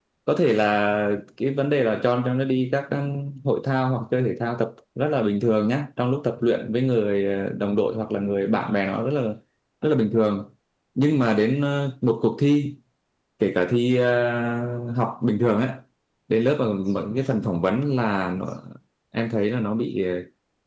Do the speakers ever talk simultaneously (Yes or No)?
No